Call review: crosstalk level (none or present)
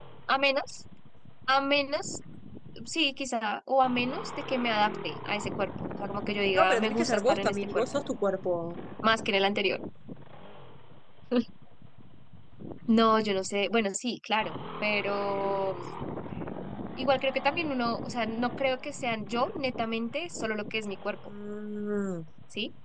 present